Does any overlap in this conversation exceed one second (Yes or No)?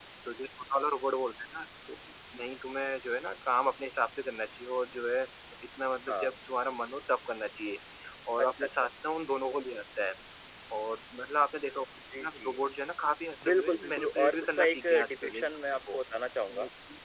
Yes